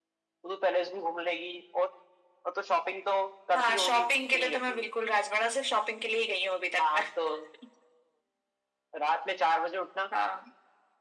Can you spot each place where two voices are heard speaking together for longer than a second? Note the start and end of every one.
3.6-4.9

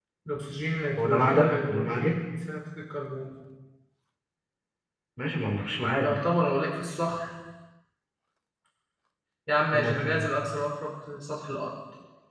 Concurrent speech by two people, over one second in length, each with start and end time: 1.0-2.2

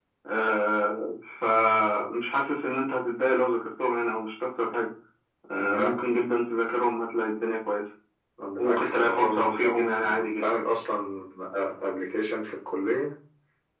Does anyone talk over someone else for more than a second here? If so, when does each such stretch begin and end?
8.6-10.5

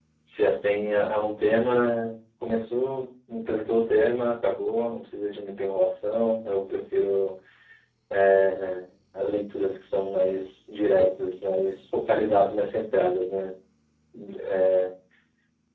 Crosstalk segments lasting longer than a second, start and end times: none

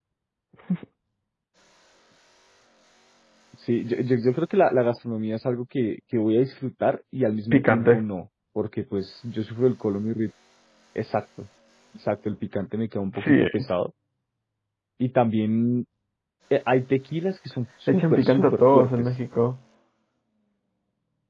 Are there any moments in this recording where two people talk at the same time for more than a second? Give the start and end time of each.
17.9-19.1

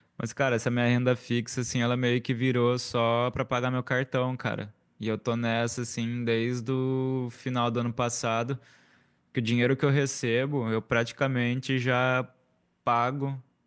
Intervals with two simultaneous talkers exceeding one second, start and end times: none

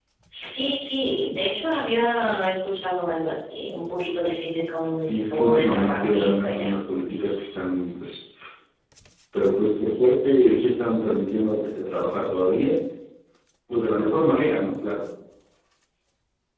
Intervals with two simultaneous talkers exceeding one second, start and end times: 5.0-6.7

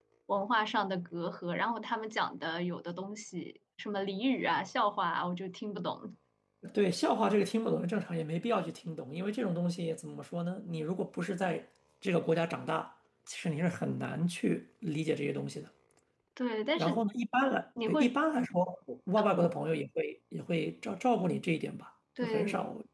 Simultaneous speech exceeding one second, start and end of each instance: none

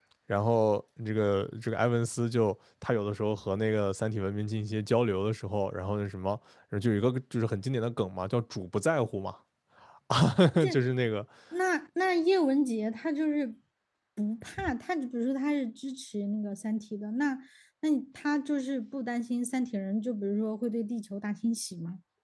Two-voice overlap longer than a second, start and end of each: none

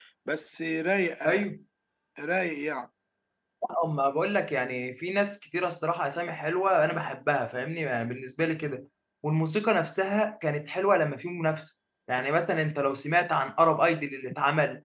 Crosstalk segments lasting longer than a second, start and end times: none

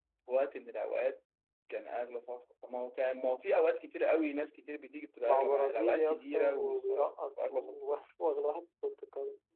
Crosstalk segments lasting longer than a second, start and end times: 5.2-6.9

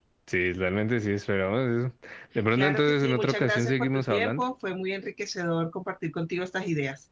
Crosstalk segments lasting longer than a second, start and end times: 2.6-4.4

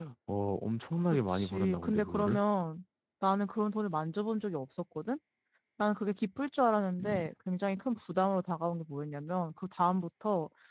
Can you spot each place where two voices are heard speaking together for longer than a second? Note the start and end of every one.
1.1-2.4

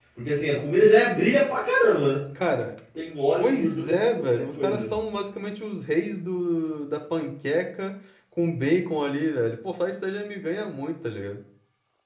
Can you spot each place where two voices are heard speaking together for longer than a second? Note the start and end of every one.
3.4-4.9

